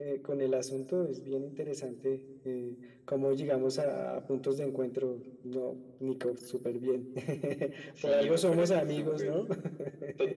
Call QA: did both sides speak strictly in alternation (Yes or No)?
No